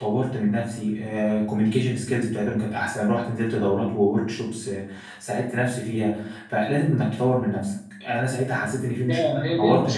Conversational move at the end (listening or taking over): taking over